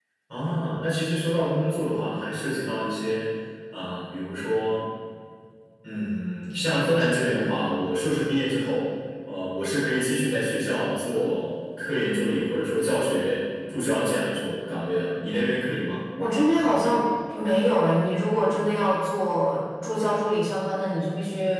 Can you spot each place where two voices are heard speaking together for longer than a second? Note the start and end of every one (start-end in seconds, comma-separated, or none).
none